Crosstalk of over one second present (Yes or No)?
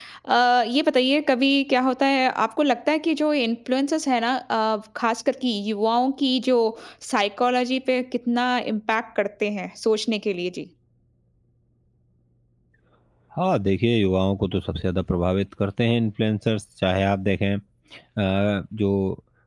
No